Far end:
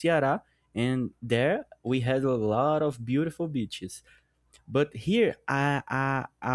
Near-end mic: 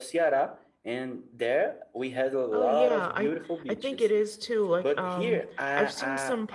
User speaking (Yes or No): Yes